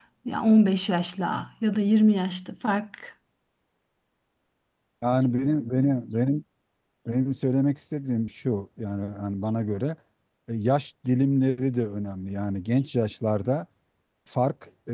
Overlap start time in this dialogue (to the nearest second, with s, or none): none